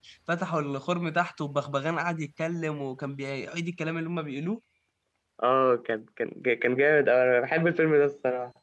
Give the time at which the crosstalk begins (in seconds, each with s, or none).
none